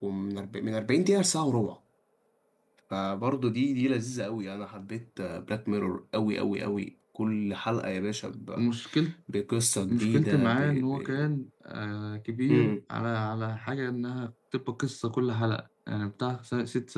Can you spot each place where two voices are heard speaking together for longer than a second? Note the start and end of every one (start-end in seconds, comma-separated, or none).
9.9-11.2